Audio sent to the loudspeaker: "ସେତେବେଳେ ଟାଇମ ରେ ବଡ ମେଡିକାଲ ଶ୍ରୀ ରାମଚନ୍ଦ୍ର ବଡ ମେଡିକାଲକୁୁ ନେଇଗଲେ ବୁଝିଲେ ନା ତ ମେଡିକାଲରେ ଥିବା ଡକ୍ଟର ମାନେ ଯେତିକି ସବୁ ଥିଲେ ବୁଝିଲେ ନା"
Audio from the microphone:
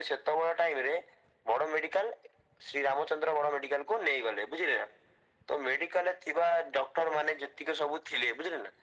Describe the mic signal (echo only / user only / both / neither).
echo only